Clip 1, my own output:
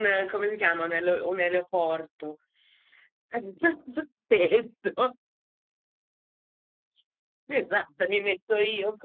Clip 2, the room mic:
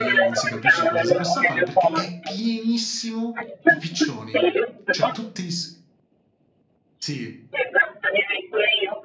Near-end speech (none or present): present